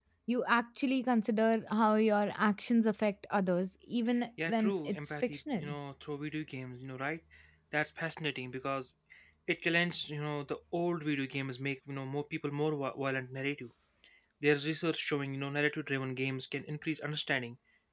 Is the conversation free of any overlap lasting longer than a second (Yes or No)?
No